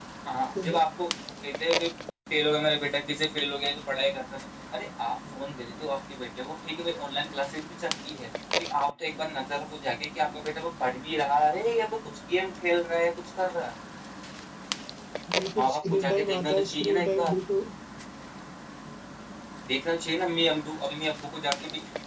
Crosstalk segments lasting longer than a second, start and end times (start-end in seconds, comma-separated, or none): 15.6-17.3